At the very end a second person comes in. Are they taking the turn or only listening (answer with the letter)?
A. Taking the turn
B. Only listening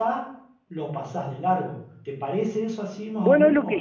A